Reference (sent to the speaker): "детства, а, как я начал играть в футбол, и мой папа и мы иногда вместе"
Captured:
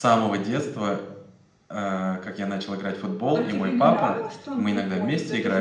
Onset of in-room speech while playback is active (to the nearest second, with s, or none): 3 s